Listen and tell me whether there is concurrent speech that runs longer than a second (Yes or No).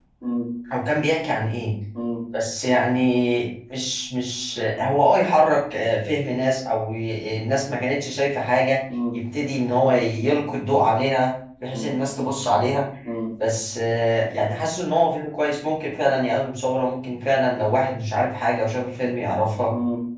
No